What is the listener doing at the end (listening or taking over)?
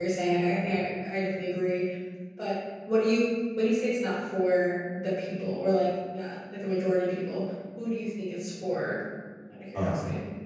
taking over